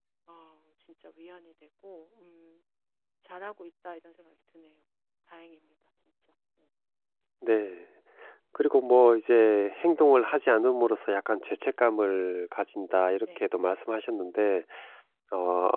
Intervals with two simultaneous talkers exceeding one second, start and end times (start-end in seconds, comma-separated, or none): none